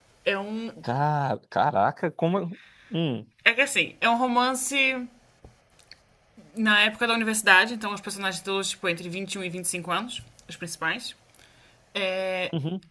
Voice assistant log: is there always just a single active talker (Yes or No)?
Yes